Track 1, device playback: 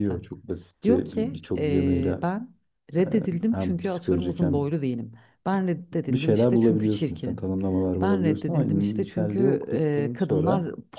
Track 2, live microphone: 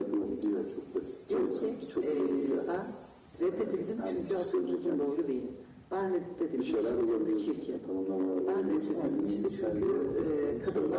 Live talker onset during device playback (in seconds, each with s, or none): none